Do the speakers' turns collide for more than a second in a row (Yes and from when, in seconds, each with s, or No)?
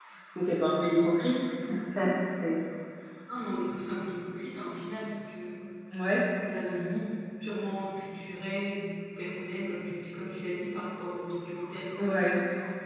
No